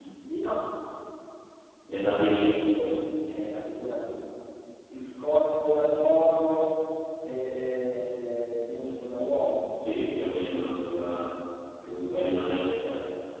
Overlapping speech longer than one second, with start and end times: none

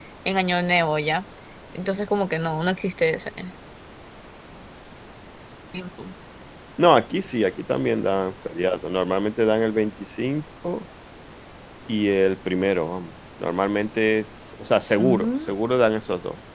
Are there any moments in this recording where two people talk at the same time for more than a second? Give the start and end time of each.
none

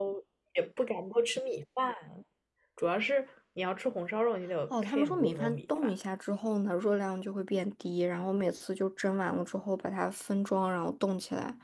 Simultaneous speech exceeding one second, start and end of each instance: 4.7-5.9

